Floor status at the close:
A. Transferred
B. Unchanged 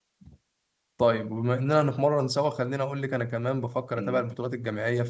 B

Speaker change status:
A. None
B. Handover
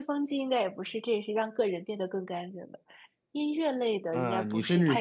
B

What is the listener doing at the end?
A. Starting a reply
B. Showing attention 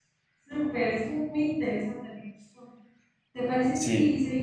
B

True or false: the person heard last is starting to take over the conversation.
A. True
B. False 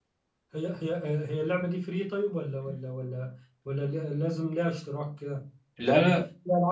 B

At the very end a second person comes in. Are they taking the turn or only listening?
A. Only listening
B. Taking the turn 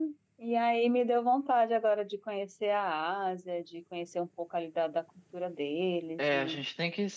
B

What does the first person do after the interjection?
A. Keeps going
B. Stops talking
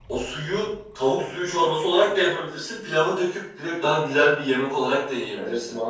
B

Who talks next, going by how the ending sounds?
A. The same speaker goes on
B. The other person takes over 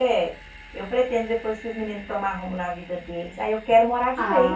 B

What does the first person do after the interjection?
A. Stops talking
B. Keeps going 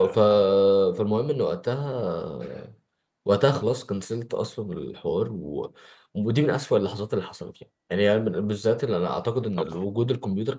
B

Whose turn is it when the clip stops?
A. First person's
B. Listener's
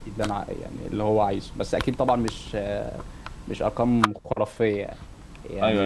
A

